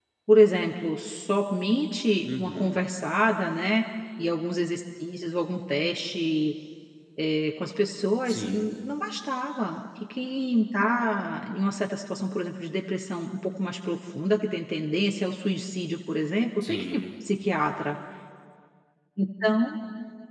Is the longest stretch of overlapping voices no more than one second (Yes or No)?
Yes